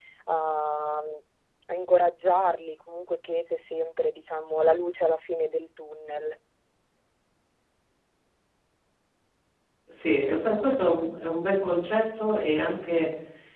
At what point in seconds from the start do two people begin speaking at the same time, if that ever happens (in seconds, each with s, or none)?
none